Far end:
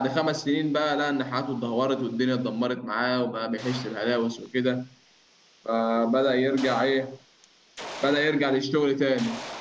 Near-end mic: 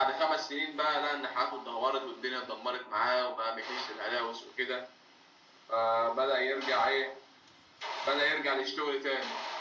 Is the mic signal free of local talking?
Yes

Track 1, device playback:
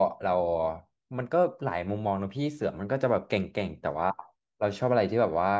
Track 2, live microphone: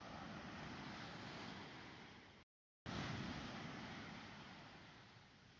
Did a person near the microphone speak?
No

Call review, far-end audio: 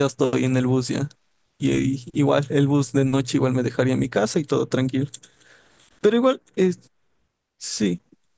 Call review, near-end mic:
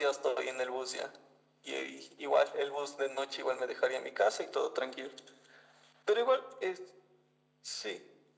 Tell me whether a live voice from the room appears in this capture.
No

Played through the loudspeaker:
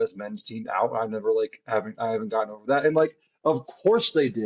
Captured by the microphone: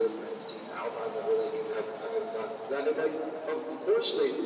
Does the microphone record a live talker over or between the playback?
No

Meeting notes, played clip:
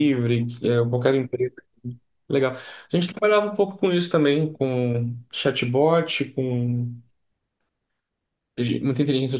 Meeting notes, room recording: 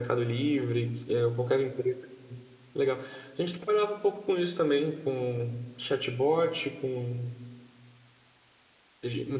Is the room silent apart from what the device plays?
Yes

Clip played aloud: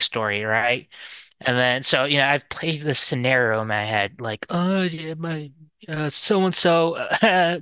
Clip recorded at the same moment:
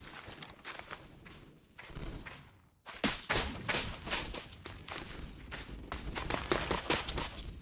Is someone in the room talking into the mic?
No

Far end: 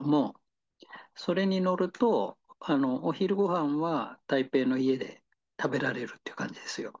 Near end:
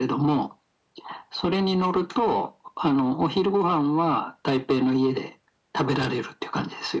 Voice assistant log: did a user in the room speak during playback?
No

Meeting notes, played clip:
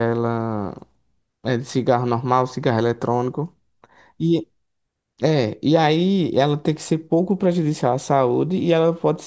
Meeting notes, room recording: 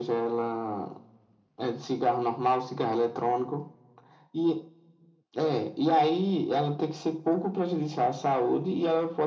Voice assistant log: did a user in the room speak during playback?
No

